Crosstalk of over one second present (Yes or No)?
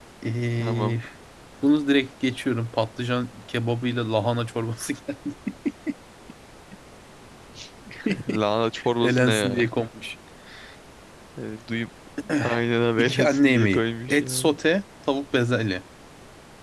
Yes